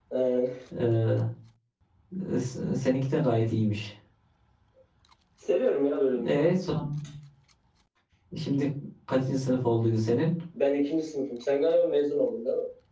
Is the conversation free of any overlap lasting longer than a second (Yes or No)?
Yes